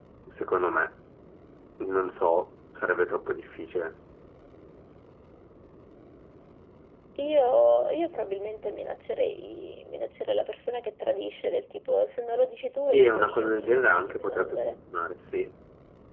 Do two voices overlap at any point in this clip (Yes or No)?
Yes